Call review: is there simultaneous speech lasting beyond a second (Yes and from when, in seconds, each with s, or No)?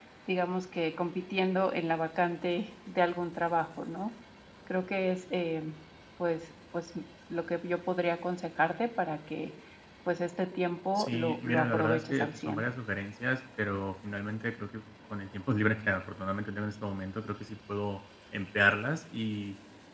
Yes, from 11.0 s